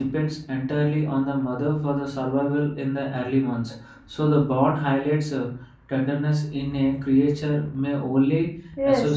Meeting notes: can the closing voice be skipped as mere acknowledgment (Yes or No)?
No